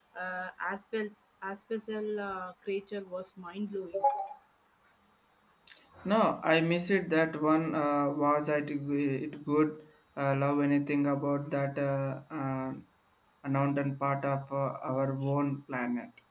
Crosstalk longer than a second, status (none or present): none